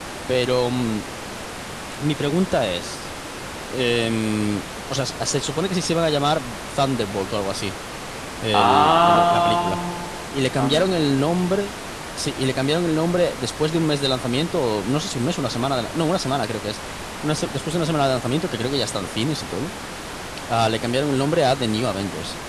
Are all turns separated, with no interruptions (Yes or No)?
No